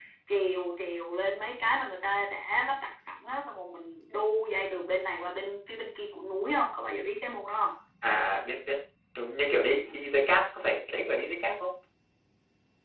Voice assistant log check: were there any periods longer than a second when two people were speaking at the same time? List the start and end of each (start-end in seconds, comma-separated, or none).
none